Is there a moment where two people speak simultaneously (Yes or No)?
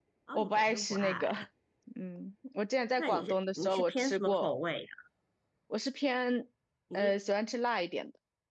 Yes